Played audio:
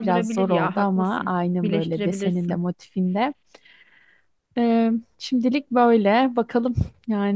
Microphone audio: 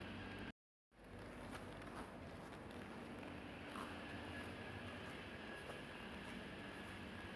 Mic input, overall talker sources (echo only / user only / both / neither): neither